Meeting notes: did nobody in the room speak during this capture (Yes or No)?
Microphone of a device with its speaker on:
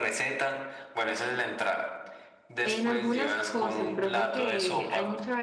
No